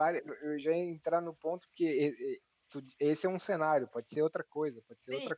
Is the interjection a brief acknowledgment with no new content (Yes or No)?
No